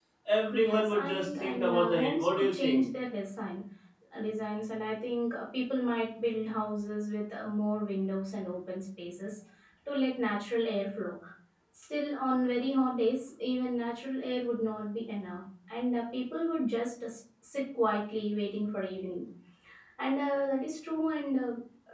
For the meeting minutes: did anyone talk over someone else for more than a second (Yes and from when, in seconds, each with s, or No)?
Yes, from 0.5 s